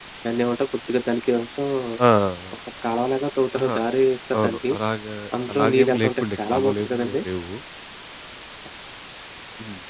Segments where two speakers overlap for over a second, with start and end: 5.5-6.9

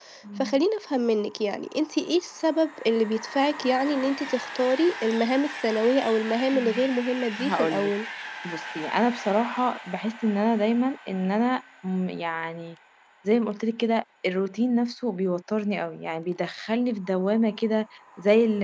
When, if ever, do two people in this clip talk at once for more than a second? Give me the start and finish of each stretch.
none

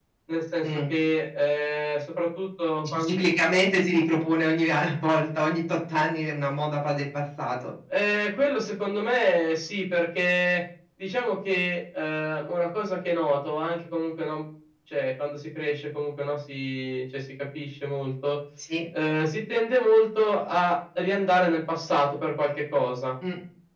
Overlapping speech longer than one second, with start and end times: none

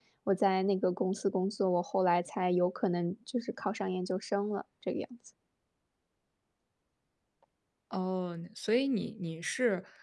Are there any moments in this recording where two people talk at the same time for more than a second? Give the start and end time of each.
none

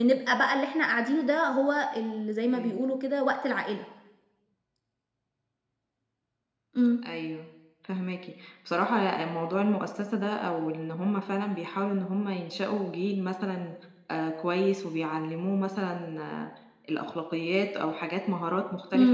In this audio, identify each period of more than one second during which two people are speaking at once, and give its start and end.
none

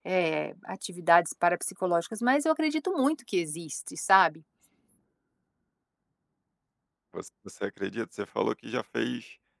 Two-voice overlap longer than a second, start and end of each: none

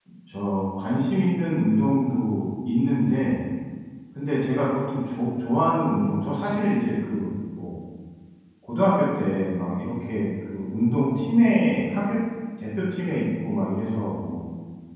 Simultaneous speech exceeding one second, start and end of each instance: none

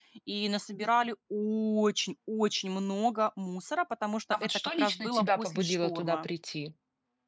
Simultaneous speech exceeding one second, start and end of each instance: 4.3-6.3

